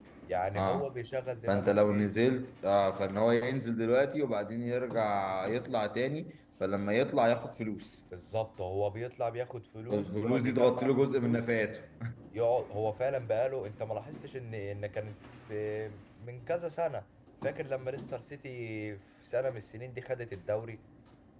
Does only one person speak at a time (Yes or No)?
No